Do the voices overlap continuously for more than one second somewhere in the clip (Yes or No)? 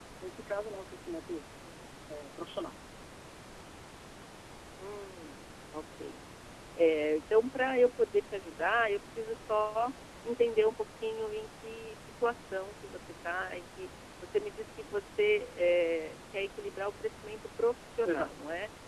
No